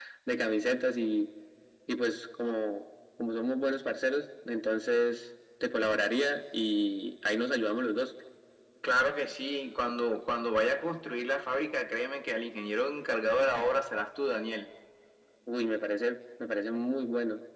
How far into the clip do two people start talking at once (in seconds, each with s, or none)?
none